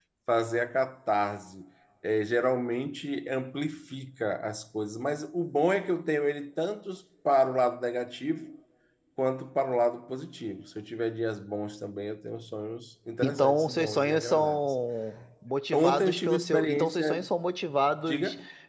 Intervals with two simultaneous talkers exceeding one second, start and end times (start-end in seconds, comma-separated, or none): 13.2-14.6, 15.7-17.3